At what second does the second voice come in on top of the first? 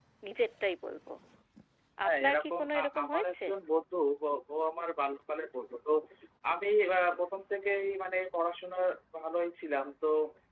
2.1 s

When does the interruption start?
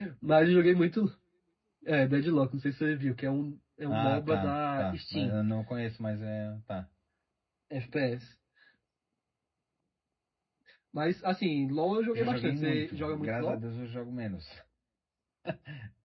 3.9 s

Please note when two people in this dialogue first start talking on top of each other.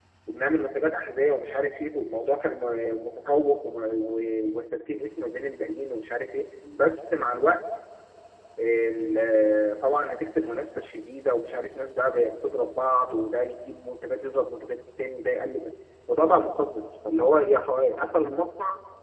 none

